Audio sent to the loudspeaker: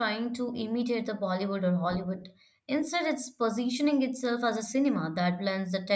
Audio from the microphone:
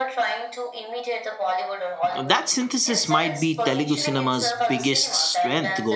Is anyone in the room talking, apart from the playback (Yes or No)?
Yes